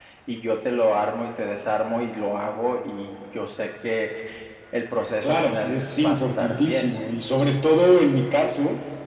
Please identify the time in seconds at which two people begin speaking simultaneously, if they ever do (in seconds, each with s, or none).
5.2 s